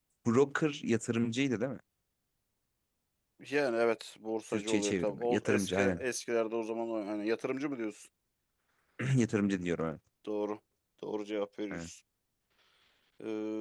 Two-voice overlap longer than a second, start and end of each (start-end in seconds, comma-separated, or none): 4.5-6.0